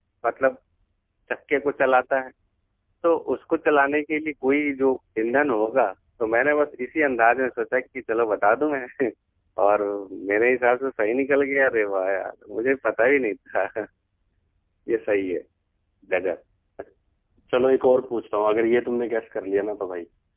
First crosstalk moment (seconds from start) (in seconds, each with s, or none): none